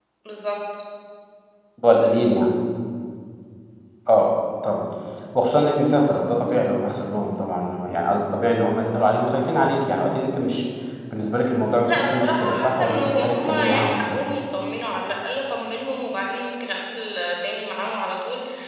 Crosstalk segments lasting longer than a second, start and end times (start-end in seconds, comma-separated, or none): 11.8-14.2